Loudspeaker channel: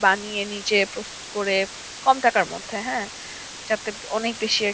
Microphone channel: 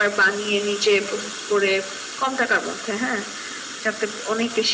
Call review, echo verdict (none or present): present